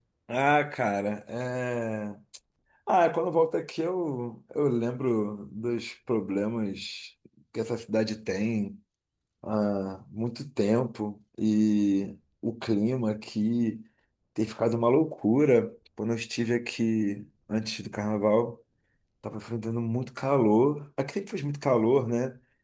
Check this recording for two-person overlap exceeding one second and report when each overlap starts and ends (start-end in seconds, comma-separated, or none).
none